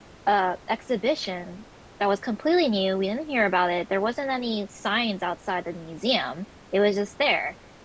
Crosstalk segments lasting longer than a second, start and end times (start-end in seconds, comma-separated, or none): none